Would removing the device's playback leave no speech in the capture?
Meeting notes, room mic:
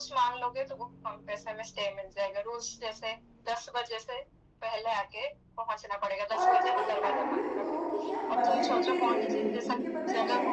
No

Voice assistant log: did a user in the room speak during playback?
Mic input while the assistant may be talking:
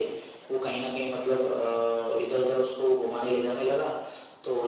No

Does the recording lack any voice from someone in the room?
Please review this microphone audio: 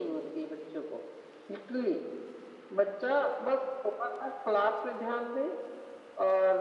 Yes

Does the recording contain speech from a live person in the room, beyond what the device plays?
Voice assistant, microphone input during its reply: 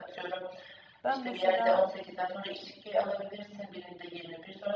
Yes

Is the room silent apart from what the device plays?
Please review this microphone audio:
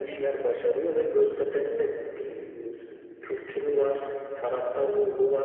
Yes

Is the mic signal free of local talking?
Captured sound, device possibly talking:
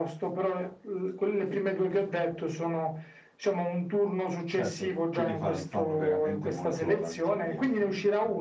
No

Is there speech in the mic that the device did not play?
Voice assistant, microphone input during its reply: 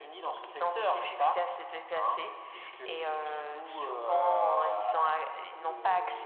No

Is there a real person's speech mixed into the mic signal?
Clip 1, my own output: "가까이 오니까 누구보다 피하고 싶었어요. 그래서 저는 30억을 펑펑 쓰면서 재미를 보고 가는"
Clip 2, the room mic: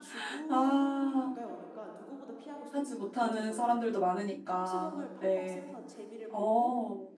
Yes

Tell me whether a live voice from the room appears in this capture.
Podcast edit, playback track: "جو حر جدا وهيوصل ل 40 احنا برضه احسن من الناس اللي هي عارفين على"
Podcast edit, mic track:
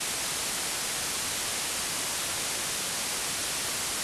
No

